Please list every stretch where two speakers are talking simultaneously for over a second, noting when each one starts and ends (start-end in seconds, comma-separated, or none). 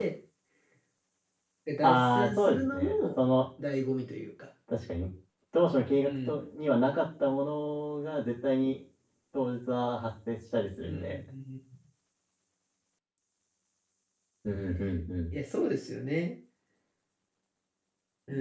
1.8-3.2